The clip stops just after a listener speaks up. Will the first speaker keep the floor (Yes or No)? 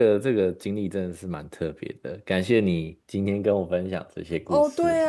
No